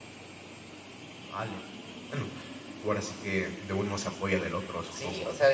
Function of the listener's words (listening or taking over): taking over